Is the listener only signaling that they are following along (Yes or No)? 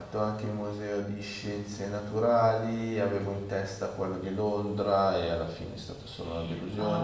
No